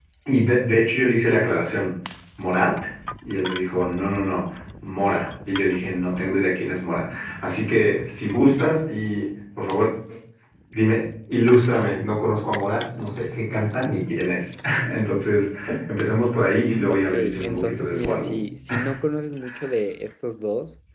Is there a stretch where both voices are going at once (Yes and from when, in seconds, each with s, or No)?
Yes, from 16.9 s